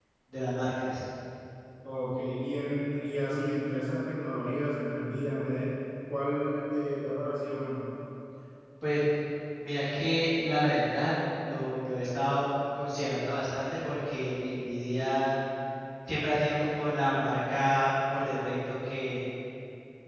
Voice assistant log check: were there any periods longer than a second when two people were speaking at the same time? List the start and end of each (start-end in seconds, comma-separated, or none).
none